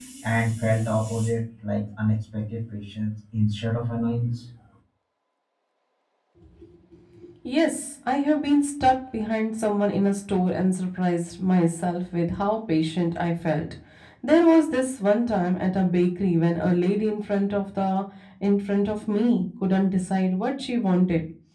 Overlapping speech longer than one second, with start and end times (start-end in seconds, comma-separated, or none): none